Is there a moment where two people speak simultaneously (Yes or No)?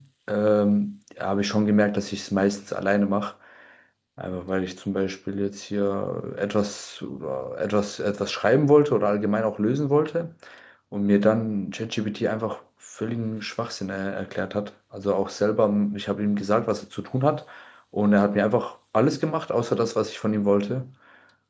No